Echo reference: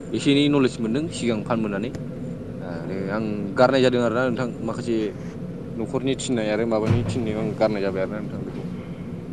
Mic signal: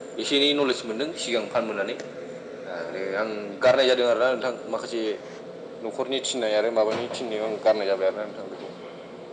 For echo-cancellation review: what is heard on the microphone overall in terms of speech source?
echo only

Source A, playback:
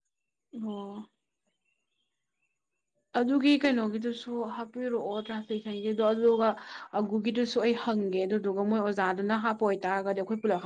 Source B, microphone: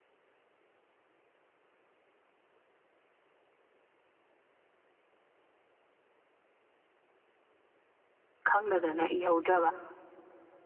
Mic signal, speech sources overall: user only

